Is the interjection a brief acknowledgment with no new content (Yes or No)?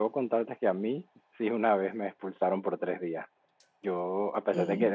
Yes